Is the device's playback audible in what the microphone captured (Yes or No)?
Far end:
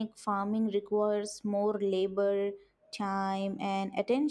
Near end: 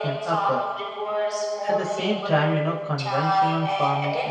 Yes